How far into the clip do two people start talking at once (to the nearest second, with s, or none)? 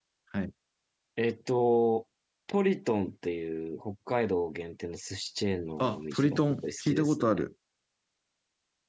6 s